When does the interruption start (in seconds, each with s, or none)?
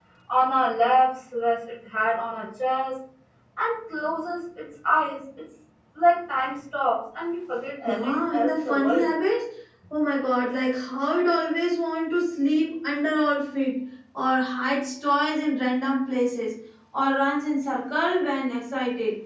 7.8 s